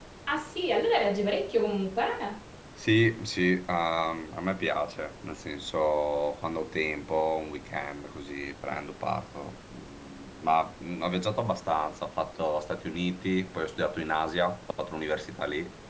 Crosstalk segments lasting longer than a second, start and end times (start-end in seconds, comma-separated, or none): none